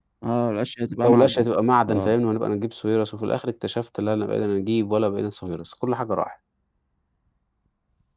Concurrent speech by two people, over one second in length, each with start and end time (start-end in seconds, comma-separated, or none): none